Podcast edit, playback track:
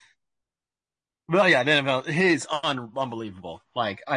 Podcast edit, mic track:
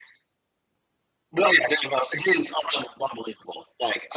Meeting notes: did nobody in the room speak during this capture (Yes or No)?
Yes